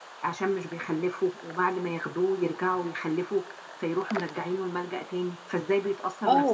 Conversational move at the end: taking over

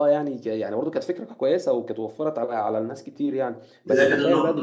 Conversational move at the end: taking over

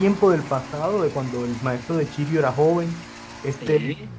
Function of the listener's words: listening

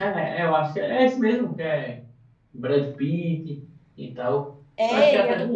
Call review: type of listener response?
taking over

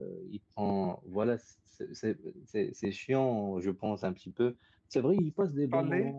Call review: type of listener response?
listening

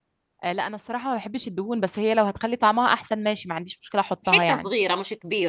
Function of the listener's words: taking over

